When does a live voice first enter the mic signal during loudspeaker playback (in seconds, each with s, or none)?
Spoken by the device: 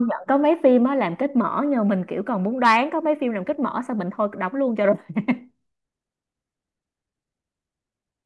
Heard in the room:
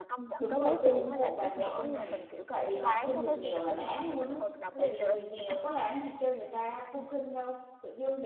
0.4 s